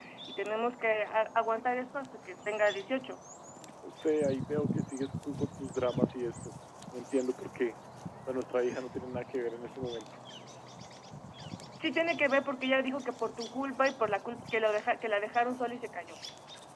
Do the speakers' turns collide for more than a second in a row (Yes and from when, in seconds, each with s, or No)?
No